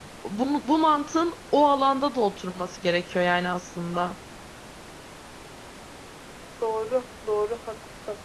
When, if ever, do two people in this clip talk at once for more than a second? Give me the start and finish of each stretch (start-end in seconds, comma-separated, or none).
none